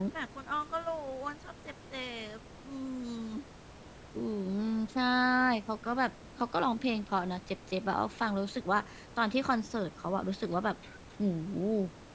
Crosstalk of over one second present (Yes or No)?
No